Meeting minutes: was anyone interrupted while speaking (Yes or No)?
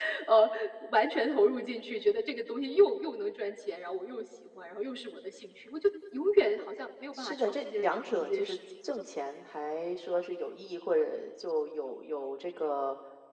Yes